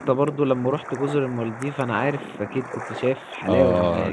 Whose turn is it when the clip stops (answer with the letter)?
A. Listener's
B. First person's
A